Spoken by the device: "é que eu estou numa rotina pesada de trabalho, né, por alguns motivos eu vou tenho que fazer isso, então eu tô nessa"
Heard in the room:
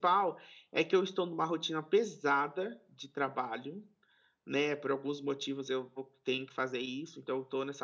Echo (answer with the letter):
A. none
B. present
B